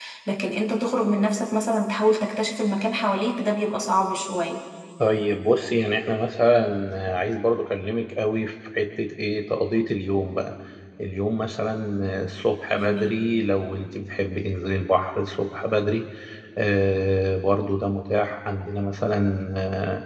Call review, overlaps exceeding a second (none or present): none